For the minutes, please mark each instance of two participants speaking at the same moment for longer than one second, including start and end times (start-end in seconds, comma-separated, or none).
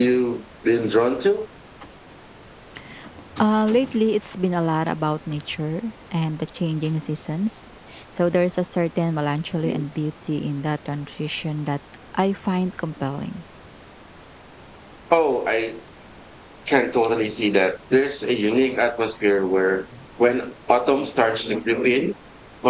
none